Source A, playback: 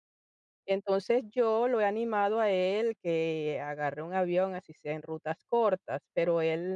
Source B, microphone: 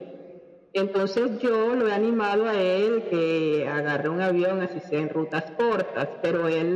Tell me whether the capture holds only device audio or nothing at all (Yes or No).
Yes